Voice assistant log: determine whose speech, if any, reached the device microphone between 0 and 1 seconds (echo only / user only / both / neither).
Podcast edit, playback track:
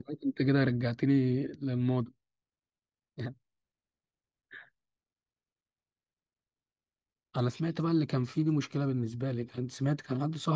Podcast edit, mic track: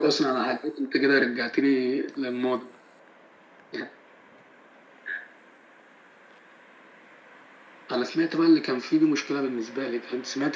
echo only